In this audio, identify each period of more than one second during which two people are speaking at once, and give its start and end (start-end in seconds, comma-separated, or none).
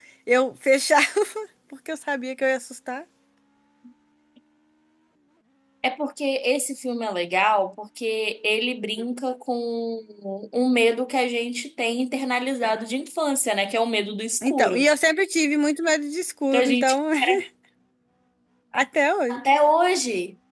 none